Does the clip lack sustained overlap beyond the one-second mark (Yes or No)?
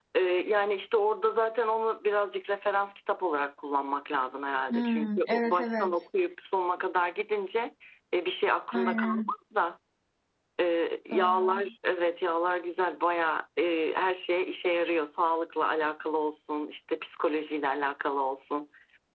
No